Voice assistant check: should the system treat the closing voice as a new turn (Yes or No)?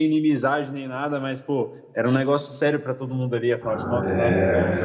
Yes